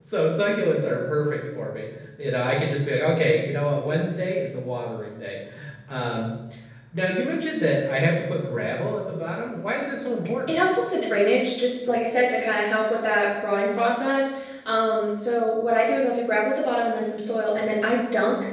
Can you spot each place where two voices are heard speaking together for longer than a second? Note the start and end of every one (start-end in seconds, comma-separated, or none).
none